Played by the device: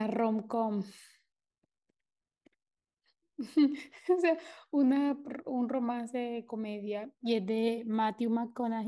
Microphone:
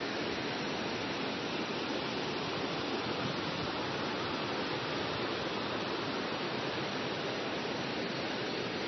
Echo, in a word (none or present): none